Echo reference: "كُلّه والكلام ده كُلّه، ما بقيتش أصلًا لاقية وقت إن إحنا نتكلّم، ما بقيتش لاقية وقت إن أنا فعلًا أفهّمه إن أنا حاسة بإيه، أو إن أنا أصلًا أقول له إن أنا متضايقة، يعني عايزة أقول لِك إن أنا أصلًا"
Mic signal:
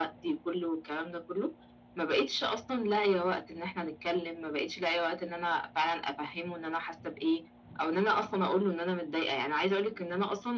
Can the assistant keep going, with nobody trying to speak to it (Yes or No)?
Yes